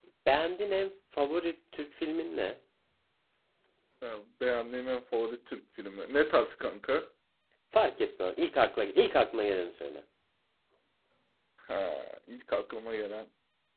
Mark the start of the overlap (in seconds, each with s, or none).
none